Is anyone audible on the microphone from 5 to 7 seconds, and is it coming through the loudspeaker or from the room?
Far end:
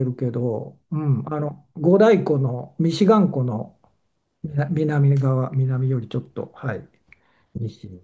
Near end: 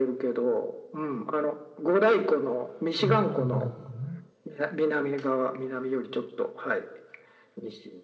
echo only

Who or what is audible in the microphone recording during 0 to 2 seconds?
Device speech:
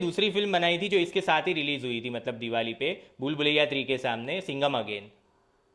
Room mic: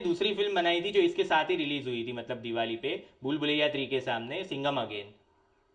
echo only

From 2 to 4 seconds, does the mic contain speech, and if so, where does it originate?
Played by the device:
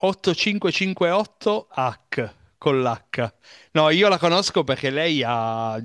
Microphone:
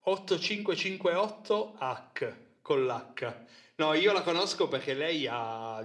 echo only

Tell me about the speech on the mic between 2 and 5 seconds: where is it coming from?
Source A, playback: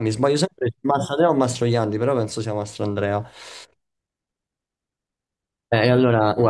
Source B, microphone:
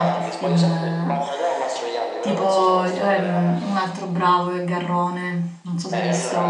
both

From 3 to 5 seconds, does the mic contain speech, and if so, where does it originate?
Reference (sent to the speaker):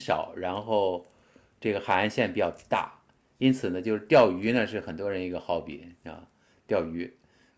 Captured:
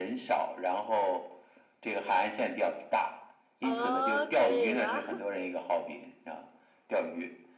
both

